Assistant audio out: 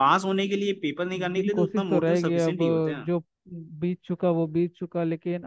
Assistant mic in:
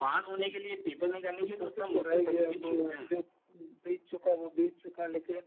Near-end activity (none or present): none